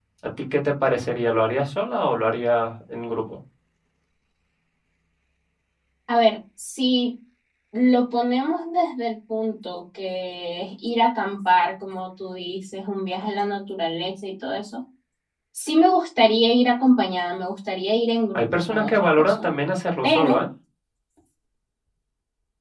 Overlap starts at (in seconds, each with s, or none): 18.3 s